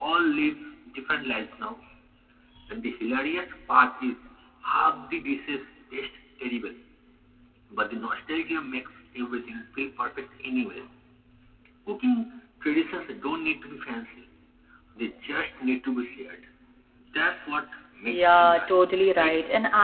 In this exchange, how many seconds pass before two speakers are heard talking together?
18.1 s

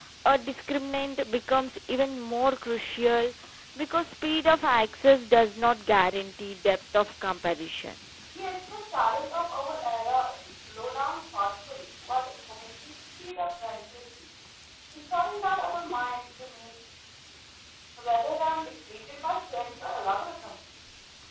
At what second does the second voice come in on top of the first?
none

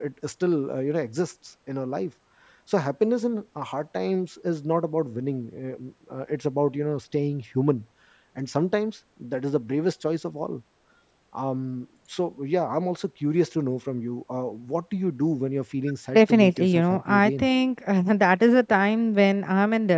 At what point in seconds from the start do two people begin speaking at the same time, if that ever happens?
16.1 s

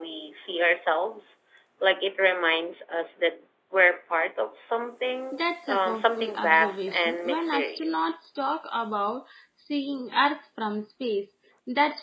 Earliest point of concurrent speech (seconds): 5.3 s

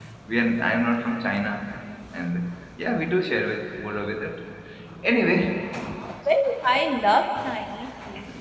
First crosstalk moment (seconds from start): none

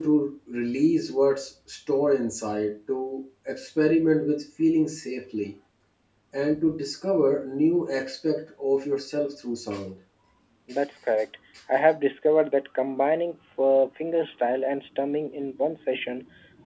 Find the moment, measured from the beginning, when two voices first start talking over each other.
none

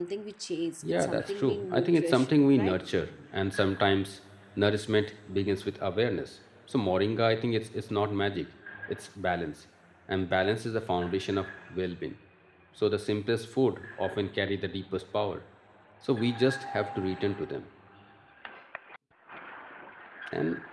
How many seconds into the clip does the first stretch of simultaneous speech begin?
0.9 s

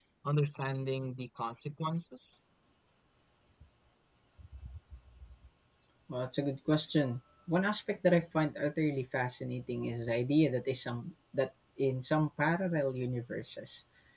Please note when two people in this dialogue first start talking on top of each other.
none

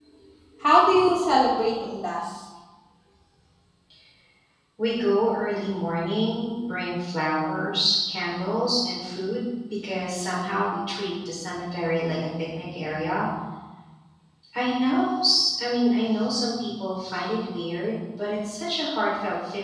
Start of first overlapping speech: none

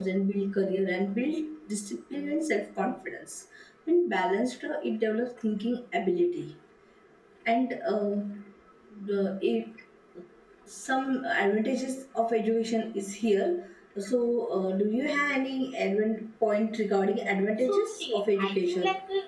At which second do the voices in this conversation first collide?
17.6 s

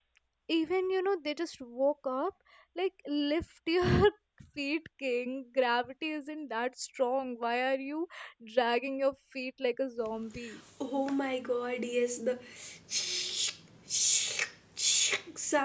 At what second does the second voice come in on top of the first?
none

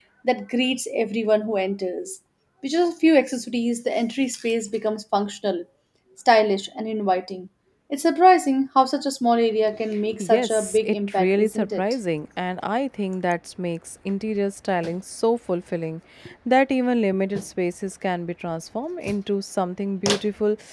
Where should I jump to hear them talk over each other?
10.2 s

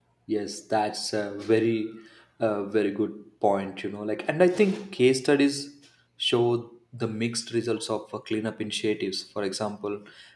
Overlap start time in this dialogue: none

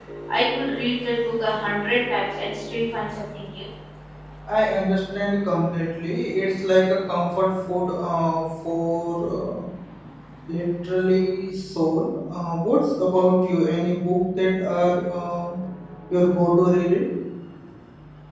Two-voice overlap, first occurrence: none

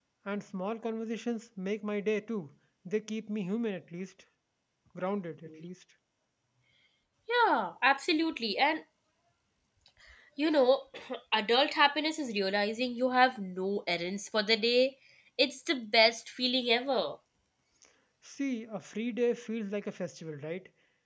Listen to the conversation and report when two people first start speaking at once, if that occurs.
none

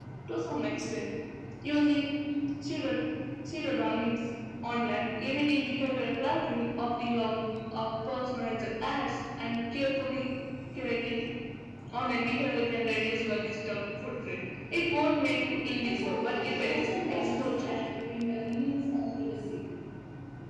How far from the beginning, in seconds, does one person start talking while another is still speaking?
15.8 s

